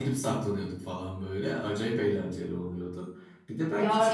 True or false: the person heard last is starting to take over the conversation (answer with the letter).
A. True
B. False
A